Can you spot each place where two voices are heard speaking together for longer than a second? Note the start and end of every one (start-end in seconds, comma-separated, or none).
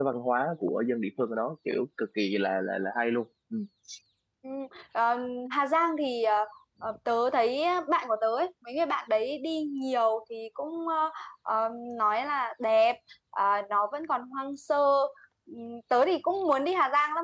none